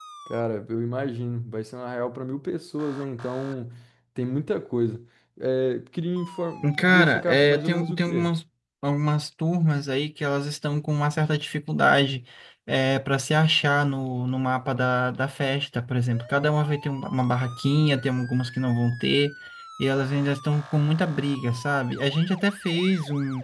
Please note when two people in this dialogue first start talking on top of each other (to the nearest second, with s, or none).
7 s